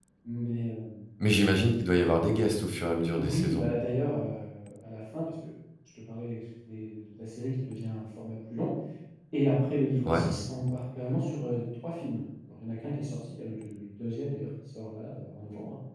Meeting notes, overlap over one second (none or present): none